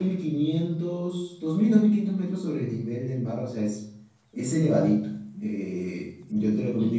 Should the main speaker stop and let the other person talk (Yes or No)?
No